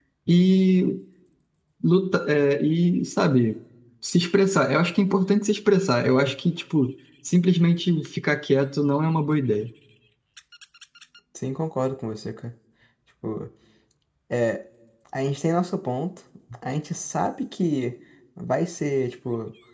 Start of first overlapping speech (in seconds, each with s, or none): none